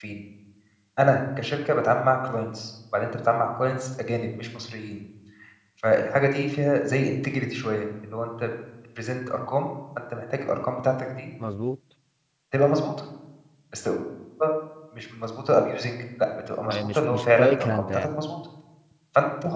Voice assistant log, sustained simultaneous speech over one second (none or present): present